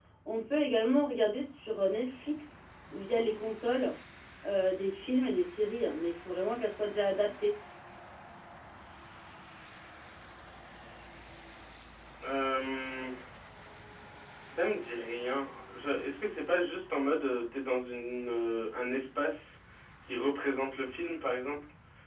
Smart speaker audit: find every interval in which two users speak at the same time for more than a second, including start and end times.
none

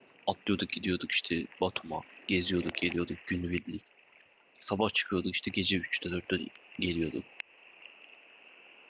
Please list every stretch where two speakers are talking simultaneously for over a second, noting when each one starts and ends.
none

